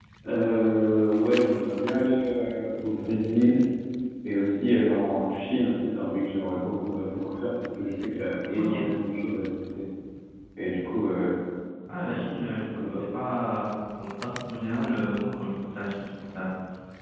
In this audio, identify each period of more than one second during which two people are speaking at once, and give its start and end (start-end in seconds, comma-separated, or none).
none